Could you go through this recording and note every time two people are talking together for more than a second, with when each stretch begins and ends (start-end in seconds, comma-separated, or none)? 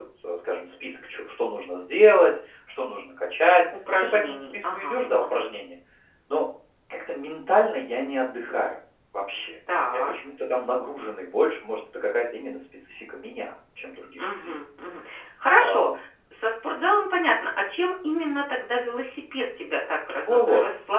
3.9-5.5